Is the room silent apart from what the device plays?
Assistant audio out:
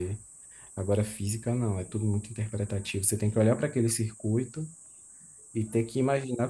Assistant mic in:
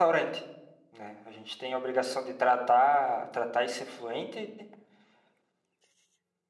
No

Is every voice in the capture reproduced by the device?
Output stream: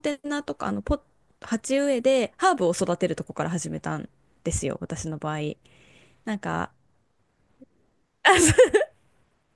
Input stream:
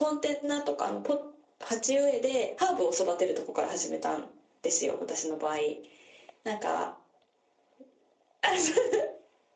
Yes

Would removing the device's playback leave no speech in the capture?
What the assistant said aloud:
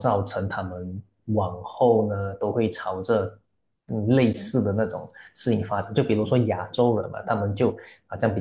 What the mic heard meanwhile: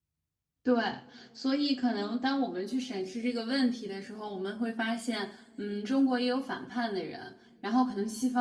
No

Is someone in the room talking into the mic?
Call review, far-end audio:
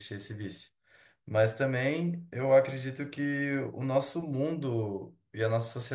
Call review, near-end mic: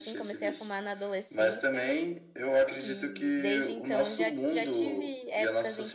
Yes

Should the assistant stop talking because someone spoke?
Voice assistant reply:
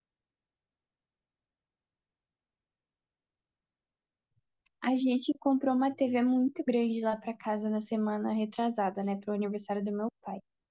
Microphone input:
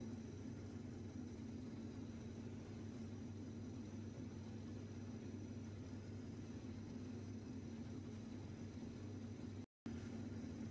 No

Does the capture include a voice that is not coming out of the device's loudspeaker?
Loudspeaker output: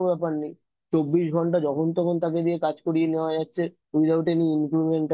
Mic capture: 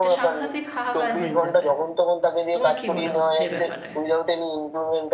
Yes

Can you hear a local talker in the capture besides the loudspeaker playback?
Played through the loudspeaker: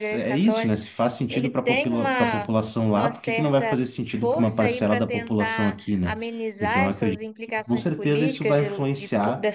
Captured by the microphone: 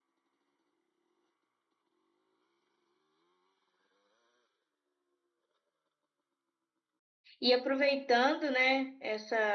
Yes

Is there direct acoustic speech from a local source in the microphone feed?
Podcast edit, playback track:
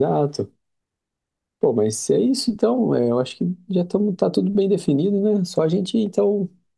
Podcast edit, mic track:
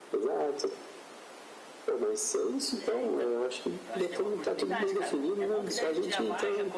Yes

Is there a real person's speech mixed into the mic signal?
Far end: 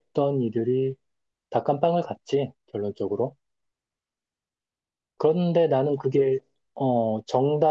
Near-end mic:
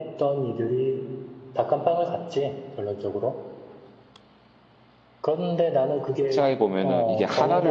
Yes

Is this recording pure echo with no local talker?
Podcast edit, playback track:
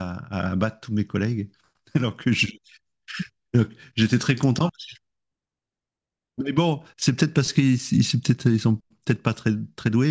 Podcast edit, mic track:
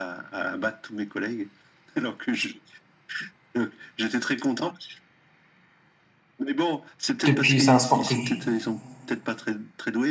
No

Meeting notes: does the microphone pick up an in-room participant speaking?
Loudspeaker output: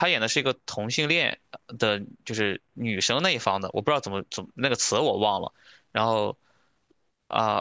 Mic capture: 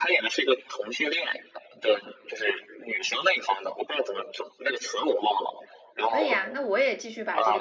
Yes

